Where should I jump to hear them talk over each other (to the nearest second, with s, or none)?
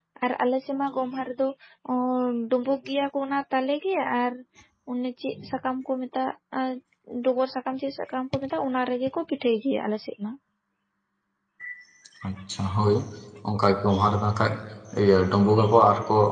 none